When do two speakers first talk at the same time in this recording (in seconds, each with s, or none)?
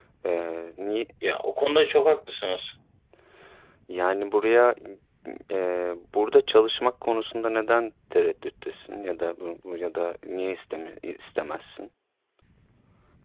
none